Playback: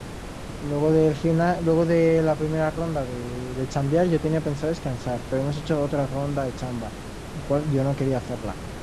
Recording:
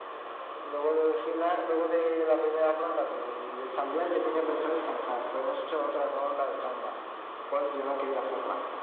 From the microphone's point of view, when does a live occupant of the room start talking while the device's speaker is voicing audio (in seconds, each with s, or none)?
none